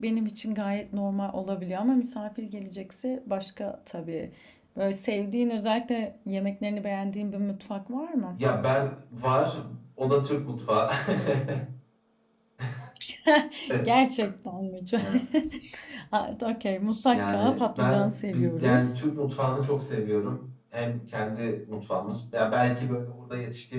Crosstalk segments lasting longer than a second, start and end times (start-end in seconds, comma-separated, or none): 17.1-18.9